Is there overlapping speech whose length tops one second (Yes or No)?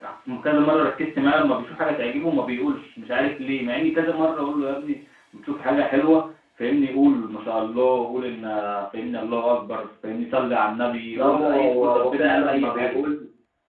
Yes